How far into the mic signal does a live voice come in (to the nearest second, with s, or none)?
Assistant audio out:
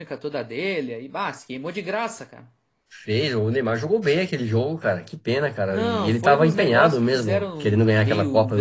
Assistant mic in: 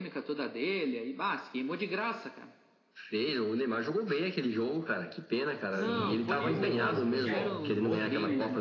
6 s